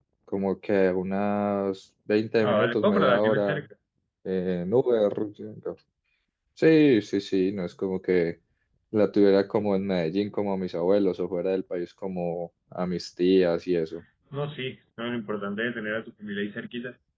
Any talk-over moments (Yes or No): Yes